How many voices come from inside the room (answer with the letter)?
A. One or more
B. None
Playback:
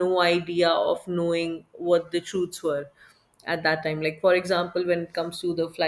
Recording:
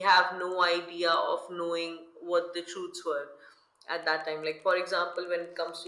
B